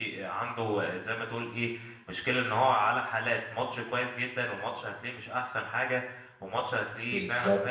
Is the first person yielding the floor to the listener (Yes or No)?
No